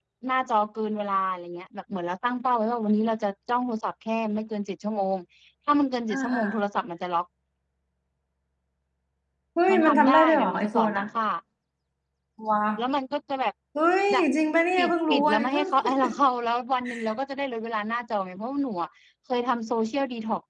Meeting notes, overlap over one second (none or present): present